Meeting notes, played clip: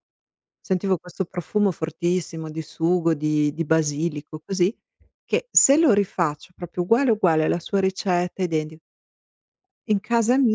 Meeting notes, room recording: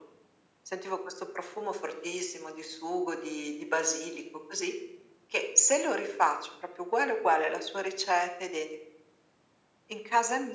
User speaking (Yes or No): No